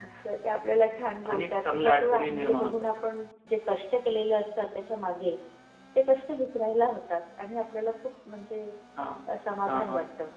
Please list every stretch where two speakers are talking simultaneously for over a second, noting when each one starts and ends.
1.3-2.7

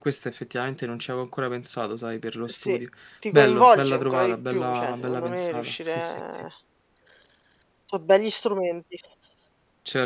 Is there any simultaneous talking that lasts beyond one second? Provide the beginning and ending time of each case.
3.3-6.2

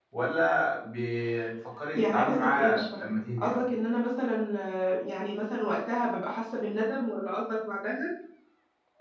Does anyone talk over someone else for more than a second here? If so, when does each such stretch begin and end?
1.9-3.6

